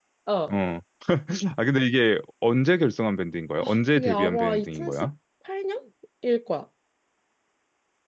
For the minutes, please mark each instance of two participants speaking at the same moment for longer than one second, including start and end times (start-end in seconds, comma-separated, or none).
3.6-5.1